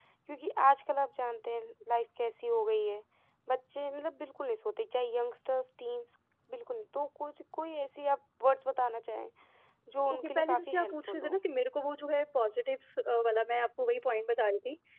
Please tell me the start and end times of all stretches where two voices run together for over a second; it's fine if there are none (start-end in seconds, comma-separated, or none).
10.1-11.4